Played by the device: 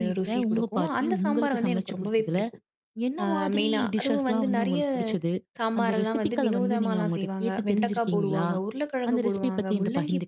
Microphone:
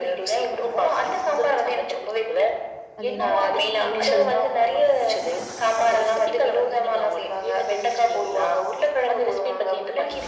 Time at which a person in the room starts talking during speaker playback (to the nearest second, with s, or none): 3 s